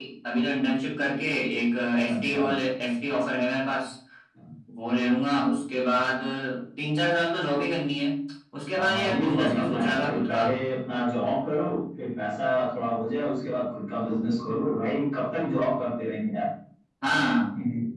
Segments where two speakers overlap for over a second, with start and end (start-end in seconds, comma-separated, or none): 8.8-10.4